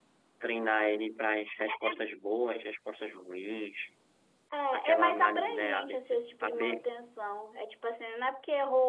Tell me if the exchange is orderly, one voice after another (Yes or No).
No